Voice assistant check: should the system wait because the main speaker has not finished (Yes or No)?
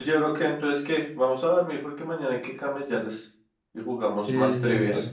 No